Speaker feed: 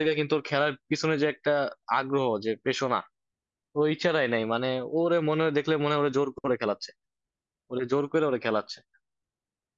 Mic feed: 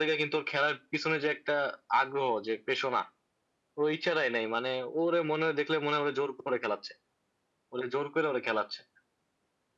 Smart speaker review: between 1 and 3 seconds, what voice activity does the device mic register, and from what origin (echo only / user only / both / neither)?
echo only